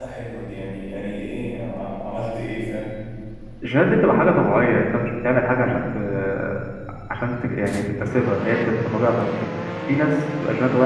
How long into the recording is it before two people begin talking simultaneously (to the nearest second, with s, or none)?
none